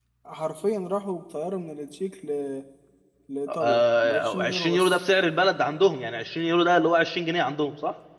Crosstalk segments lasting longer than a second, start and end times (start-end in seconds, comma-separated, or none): 3.5-5.0